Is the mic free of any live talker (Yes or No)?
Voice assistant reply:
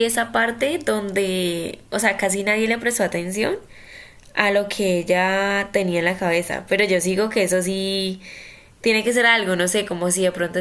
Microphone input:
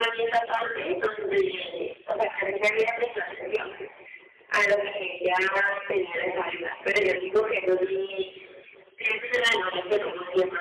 Yes